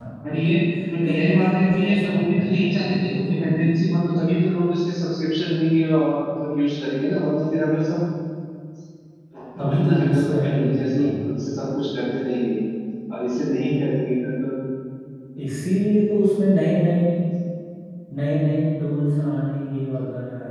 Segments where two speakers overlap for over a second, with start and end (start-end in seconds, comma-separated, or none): 1.0-3.8, 9.7-11.1